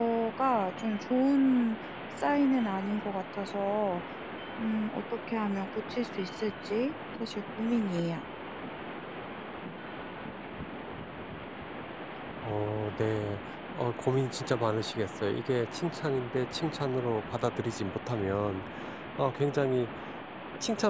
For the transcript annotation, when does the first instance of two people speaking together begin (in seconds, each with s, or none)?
none